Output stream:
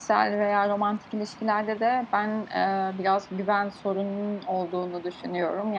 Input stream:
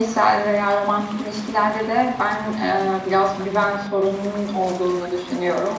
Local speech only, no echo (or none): none